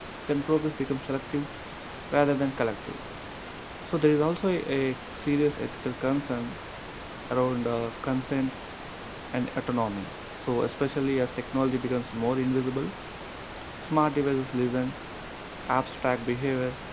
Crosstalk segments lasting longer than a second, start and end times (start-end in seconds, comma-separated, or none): none